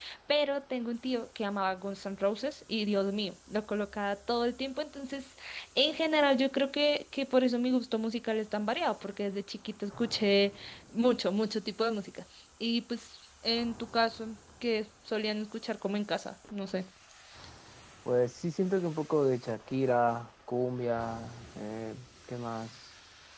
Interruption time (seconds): none

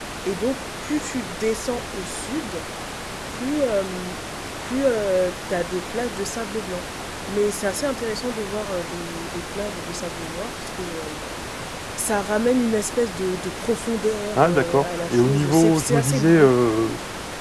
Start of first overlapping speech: 14.3 s

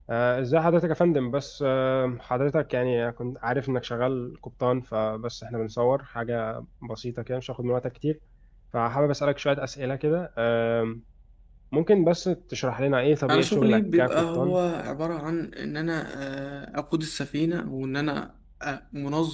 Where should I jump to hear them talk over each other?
13.3 s

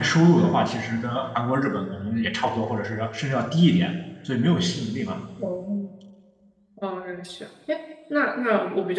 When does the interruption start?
none

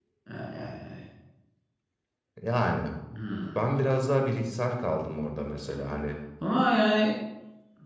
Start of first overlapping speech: none

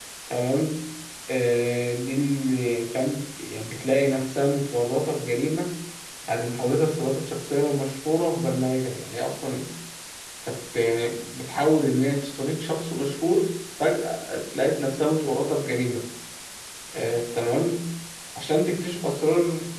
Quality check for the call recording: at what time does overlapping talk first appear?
none

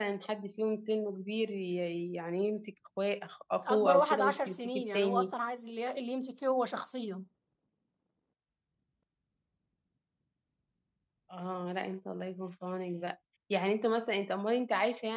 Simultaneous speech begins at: 3.7 s

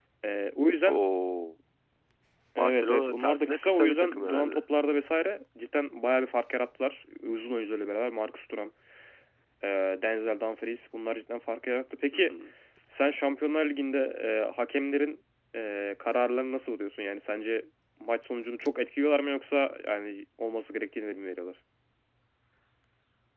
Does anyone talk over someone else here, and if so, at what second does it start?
2.6 s

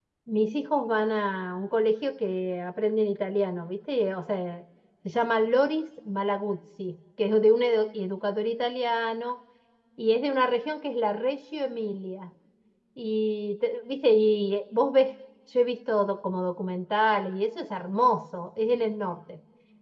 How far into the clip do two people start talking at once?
none

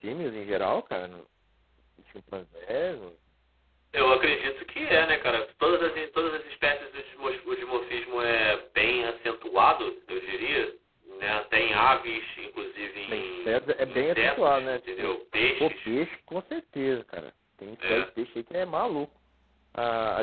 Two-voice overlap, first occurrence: 13.1 s

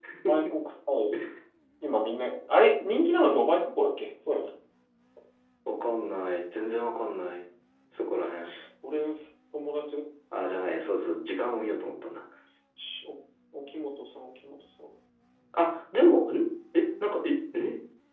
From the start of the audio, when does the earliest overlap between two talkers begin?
none

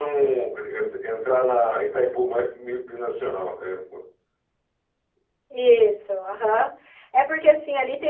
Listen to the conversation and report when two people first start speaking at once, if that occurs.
none

